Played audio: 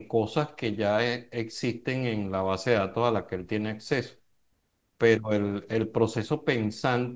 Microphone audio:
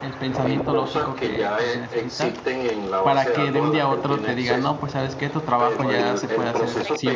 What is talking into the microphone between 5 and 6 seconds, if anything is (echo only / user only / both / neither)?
both